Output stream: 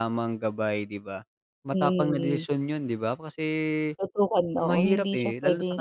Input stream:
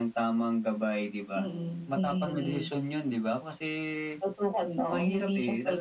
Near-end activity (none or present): present